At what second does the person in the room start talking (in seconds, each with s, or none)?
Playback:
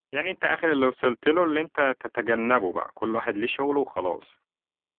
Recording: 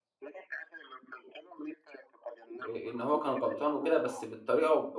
2.7 s